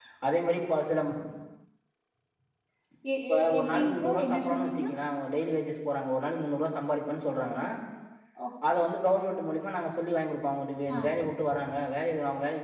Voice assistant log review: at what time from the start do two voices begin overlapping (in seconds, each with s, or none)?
3.3 s